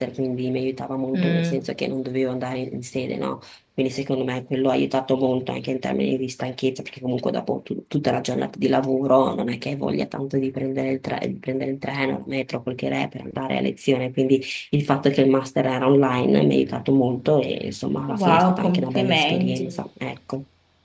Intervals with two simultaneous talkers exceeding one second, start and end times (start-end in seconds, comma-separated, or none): 18.1-19.7